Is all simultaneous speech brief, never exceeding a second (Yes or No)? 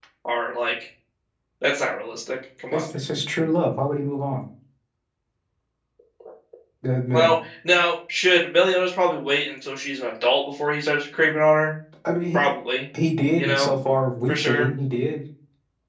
Yes